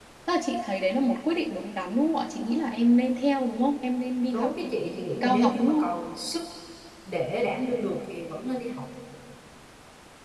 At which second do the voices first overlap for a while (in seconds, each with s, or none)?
4.3 s